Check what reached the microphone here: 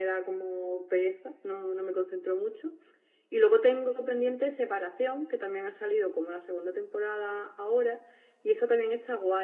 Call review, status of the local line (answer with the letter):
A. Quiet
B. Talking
A